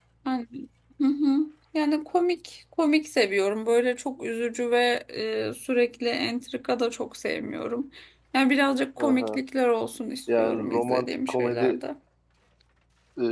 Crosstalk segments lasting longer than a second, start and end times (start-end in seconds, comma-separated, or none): 10.4-11.8